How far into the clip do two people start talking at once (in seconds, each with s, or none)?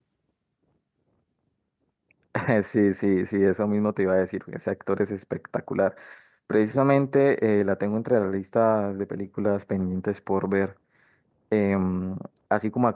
none